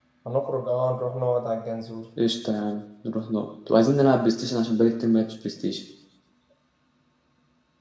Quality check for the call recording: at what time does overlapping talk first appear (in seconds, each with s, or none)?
none